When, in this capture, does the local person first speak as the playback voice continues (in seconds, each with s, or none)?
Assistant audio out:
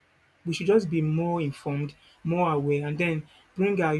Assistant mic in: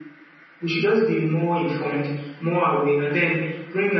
none